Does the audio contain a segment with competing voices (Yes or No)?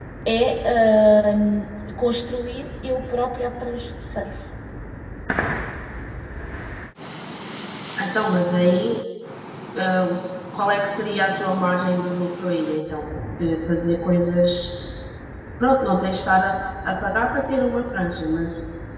No